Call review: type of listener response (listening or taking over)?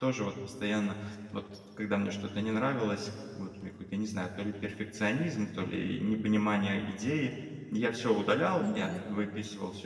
listening